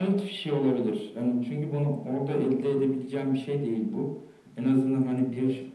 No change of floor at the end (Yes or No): Yes